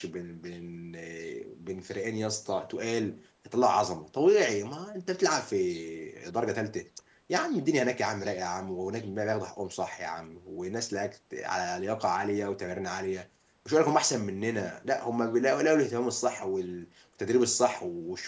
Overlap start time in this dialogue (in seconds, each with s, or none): none